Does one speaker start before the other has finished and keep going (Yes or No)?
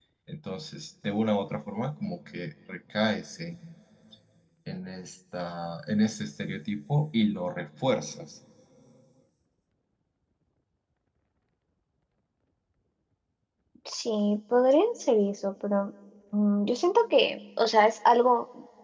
No